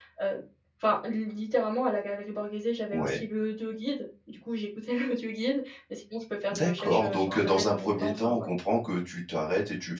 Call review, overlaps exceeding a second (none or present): present